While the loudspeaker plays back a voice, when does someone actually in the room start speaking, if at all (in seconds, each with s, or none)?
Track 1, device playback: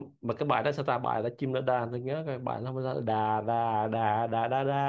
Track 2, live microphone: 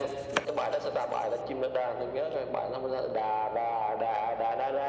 none